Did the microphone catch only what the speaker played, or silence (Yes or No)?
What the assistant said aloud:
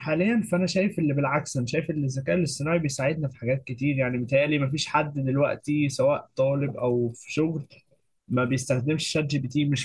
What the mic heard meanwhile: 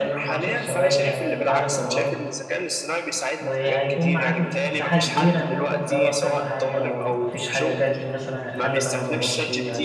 No